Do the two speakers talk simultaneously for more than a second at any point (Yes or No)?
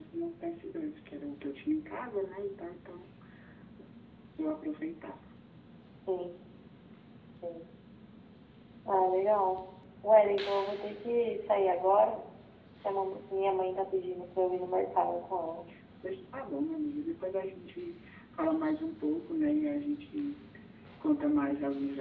No